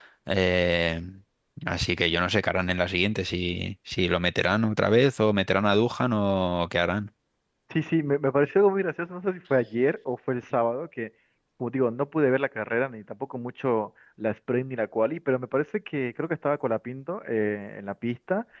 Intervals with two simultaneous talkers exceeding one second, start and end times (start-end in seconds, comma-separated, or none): none